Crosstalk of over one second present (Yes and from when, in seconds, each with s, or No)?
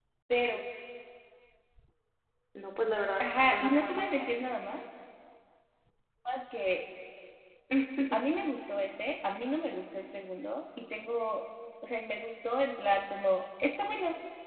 Yes, from 3.2 s